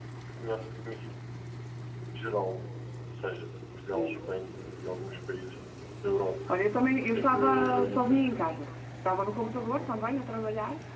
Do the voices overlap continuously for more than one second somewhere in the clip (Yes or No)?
Yes